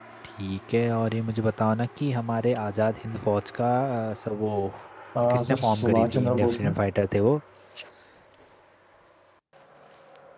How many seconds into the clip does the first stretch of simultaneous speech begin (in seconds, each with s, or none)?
5.3 s